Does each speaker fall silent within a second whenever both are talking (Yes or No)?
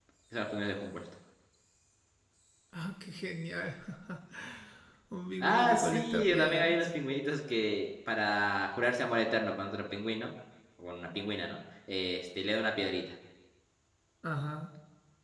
No